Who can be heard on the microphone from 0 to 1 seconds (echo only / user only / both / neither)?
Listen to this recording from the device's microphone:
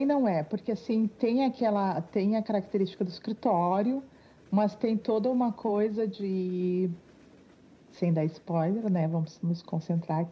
echo only